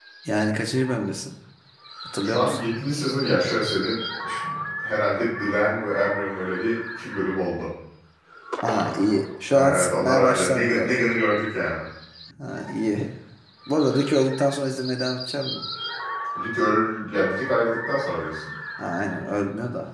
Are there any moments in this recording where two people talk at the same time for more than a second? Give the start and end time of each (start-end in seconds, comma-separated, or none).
9.5-11.0